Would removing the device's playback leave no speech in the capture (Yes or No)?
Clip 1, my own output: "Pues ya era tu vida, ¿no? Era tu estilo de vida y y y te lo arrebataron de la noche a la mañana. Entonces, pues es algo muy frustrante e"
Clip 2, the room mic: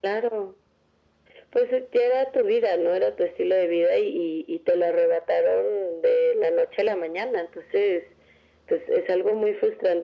Yes